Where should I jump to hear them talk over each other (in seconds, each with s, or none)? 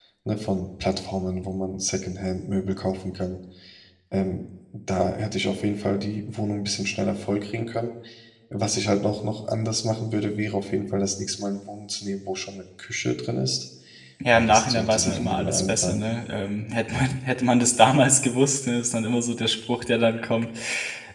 14.3 s